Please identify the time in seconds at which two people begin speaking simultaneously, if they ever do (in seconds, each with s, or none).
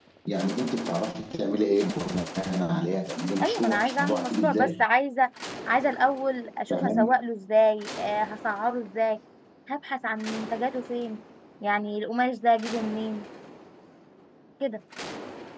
3.4 s